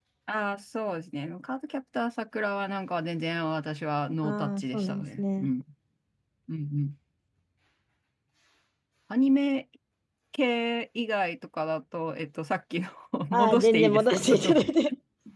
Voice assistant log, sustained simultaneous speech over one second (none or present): present